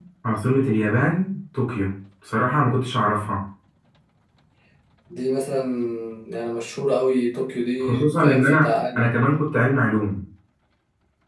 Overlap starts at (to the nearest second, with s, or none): 8 s